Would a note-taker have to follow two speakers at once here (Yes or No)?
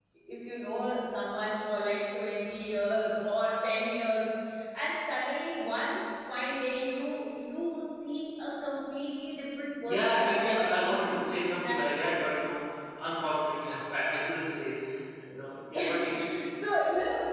Yes